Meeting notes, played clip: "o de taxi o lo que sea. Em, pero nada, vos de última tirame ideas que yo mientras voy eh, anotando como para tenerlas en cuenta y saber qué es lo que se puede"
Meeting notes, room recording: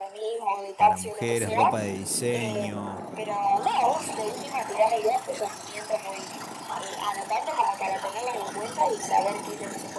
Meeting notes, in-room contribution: present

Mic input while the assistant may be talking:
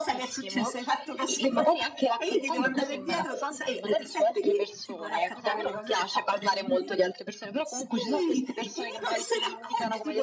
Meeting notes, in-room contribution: none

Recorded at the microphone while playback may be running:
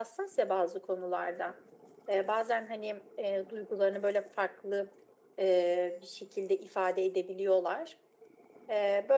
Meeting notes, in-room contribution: none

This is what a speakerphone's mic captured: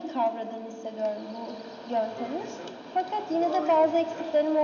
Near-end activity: present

